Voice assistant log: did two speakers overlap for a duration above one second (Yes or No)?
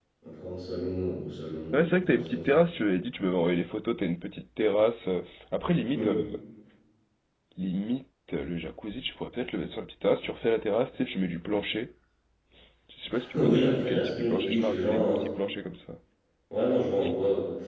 Yes